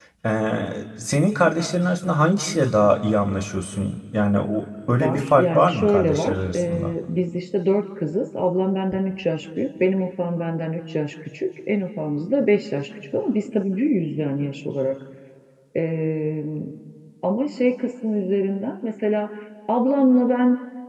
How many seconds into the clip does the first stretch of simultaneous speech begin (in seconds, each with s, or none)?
5.0 s